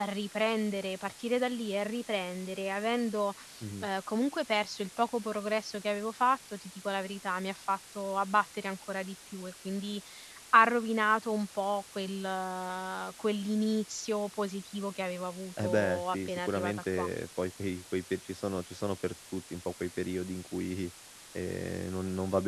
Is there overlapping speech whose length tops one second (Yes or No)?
Yes